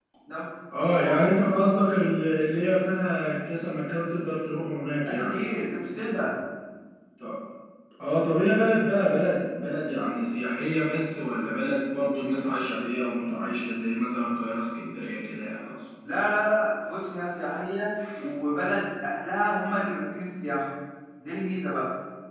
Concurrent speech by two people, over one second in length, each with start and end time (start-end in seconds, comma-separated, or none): none